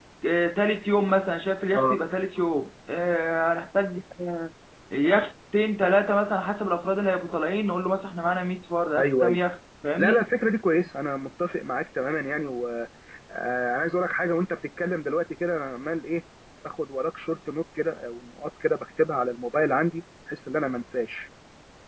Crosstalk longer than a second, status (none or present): none